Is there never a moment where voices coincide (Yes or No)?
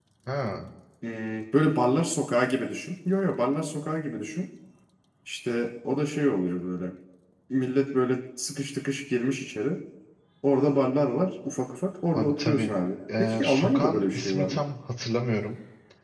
No